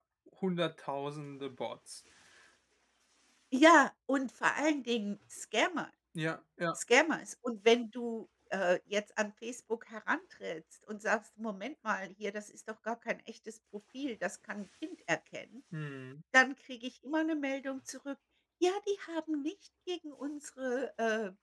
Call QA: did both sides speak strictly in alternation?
Yes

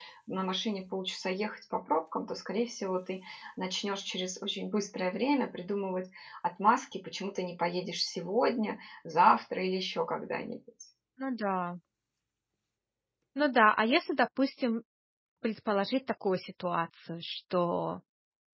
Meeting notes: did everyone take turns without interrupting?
Yes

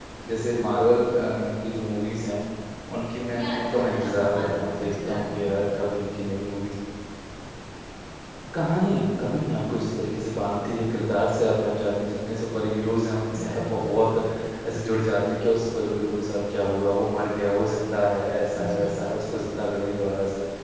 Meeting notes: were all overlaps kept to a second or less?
No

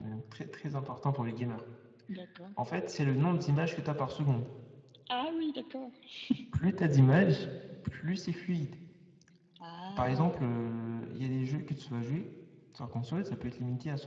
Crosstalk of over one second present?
No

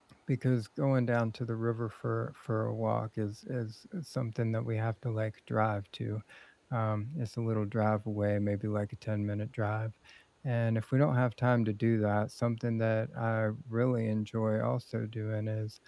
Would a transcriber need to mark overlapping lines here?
No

